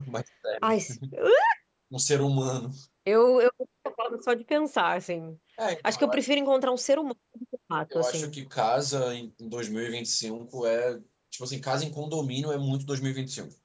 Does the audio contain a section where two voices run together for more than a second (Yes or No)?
No